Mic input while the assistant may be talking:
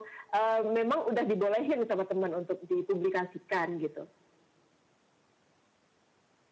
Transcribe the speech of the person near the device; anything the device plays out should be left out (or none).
none